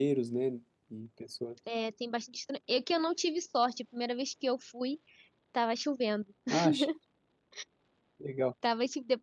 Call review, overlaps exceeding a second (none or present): none